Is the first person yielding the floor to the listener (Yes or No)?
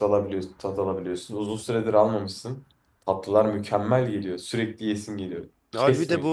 Yes